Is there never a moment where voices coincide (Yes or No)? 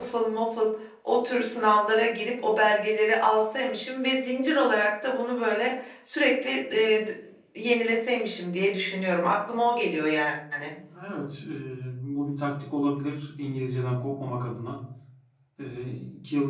Yes